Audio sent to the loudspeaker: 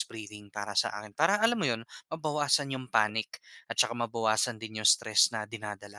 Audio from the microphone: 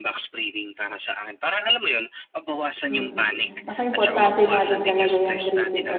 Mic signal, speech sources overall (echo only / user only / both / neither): both